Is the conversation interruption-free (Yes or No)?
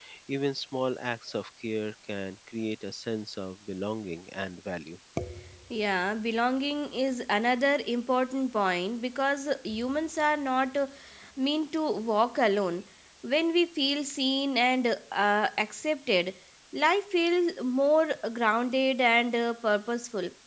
Yes